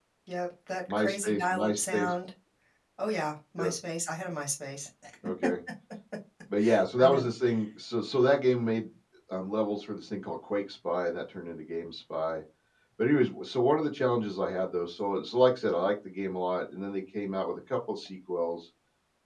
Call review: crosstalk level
present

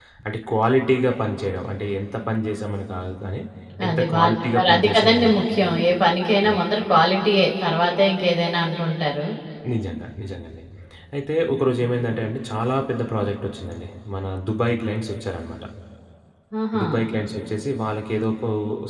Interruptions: present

